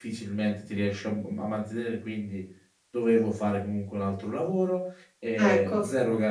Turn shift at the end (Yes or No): No